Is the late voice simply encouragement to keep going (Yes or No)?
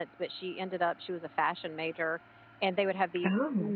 Yes